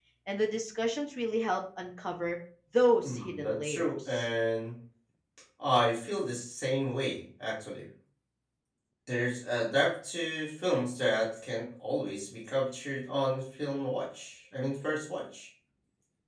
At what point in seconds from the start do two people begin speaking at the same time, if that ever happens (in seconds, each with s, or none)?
3.0 s